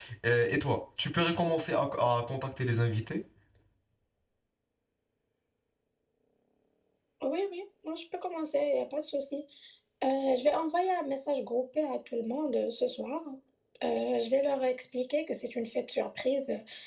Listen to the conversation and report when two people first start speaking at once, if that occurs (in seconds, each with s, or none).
none